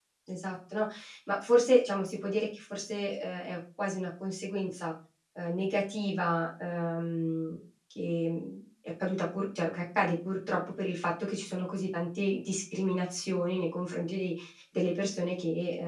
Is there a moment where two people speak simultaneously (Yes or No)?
No